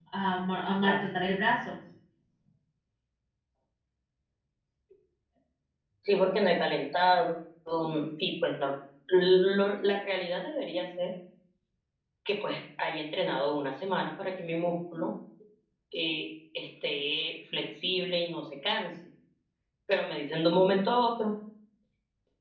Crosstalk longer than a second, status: none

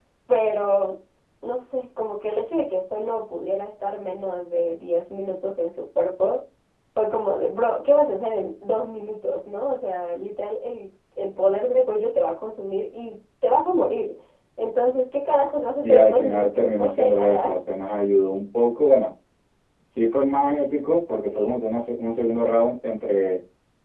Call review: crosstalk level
present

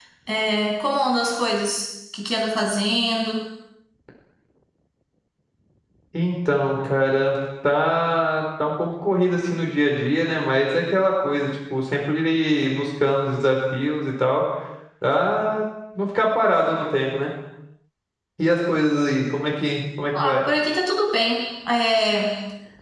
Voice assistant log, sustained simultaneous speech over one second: none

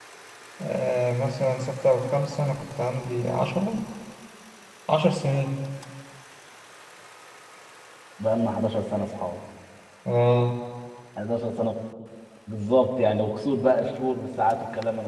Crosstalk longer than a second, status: none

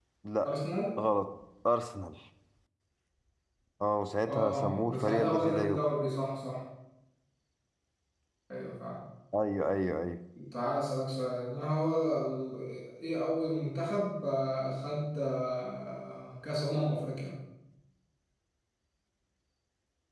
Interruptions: present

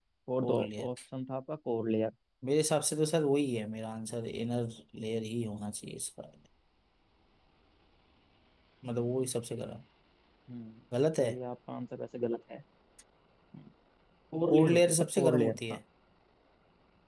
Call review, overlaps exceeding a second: present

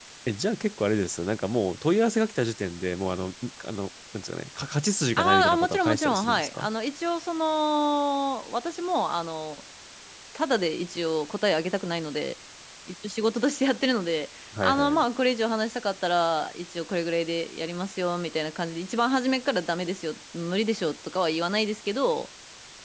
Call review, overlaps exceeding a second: present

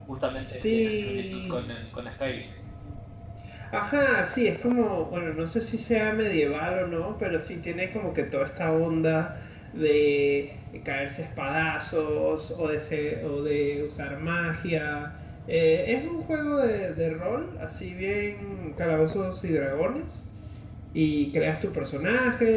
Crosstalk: present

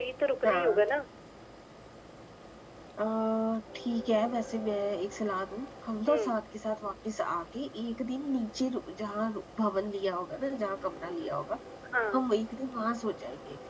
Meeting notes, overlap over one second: none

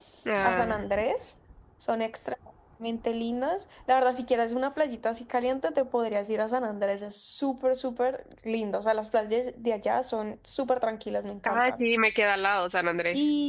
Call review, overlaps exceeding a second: none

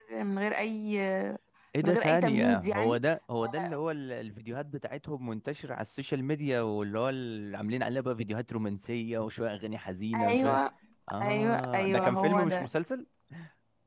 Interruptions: present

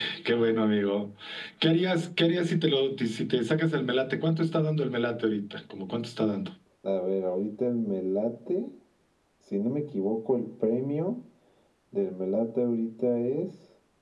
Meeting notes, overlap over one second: none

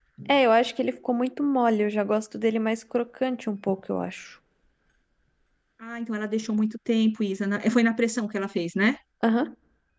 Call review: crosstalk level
none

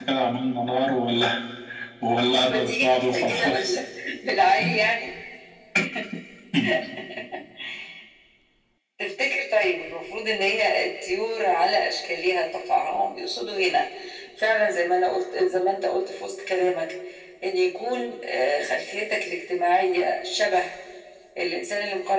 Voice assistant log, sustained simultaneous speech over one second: present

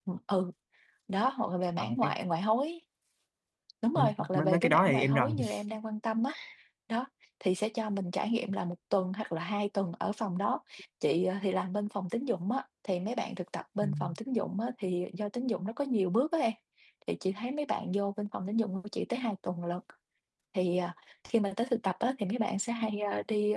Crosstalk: present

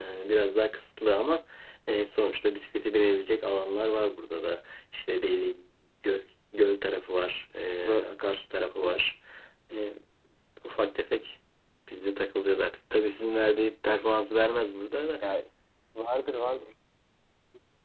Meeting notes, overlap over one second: none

